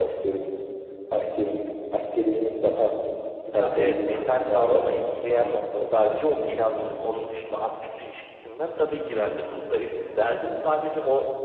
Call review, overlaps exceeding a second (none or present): present